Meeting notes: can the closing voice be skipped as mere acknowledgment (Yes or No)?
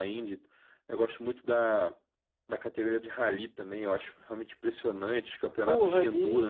No